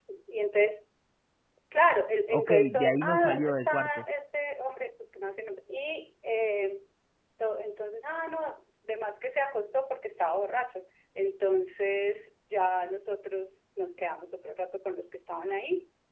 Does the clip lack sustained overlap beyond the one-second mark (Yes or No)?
No